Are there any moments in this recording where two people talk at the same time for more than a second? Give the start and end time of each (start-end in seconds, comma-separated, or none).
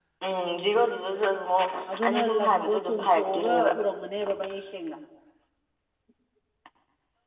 2.0-3.7